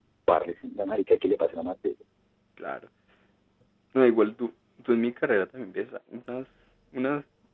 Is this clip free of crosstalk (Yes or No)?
Yes